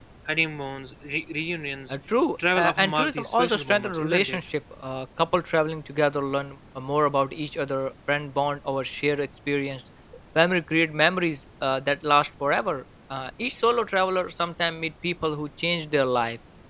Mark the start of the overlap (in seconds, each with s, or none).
2.5 s